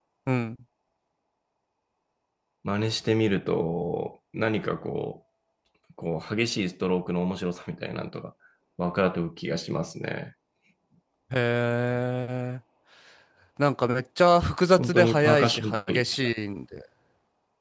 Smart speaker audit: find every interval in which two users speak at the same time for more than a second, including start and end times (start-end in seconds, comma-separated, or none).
14.8-16.0